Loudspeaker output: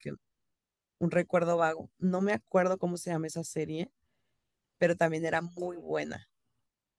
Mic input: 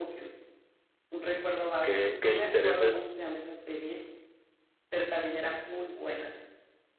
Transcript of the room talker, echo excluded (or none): qué, qué intereses